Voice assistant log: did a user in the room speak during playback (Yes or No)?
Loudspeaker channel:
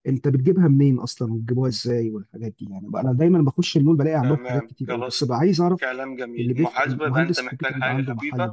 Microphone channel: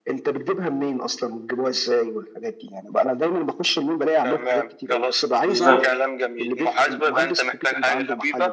Yes